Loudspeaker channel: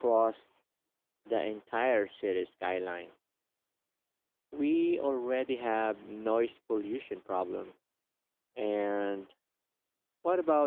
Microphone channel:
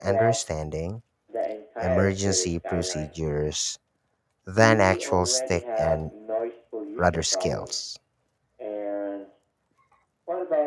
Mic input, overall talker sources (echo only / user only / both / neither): both